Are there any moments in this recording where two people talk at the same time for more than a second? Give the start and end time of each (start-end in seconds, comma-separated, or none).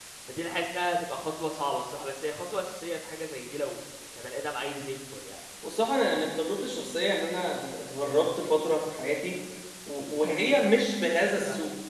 none